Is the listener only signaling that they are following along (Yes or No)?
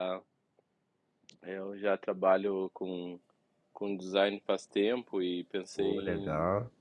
Yes